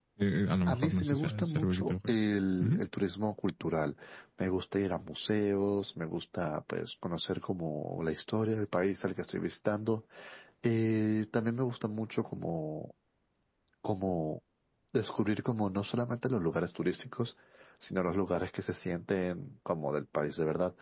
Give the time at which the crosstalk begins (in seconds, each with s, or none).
0.7 s